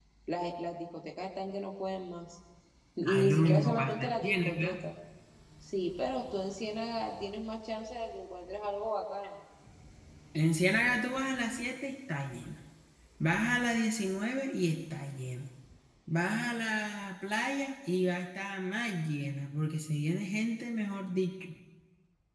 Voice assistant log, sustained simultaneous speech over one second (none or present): present